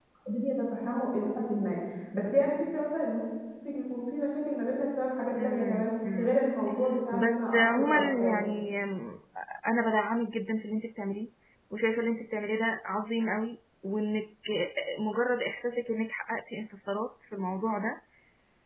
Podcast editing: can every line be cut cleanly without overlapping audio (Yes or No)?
No